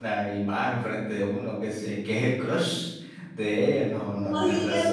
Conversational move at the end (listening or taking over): taking over